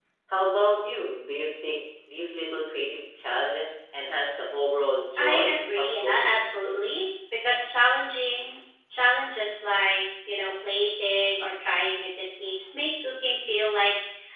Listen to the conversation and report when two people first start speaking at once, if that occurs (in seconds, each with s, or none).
5.2 s